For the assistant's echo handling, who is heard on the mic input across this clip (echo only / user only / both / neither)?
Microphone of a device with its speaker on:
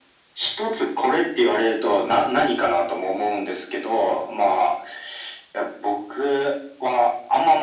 echo only